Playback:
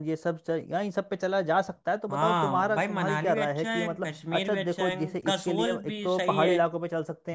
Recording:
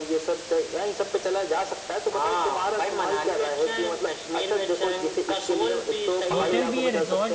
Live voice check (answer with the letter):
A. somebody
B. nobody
A